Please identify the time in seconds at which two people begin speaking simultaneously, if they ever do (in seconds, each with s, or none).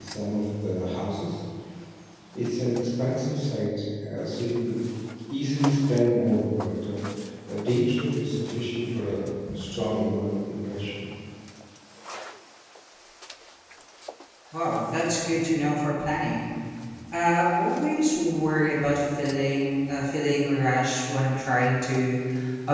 none